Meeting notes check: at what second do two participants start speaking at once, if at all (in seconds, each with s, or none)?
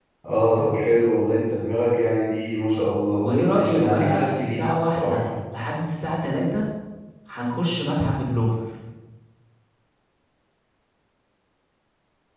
3.1 s